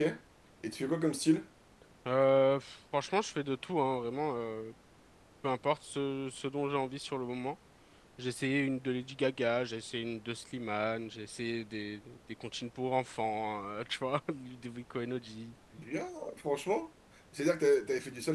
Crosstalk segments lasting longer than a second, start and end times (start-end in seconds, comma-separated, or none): none